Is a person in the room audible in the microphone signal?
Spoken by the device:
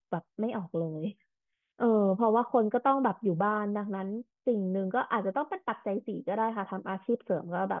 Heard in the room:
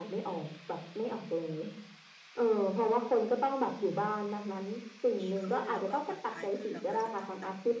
Yes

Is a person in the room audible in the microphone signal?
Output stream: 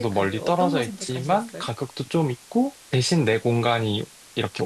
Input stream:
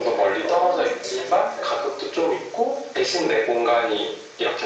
No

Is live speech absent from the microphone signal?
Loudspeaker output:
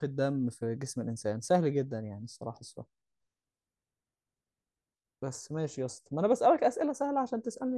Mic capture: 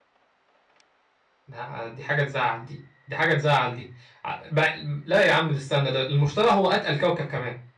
No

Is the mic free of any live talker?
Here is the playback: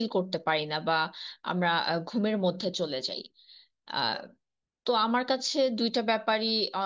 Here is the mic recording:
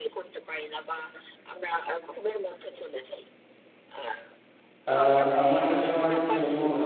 No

